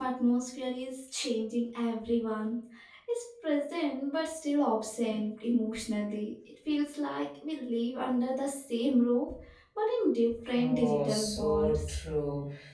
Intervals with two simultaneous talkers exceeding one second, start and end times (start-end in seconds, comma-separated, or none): 10.6-12.0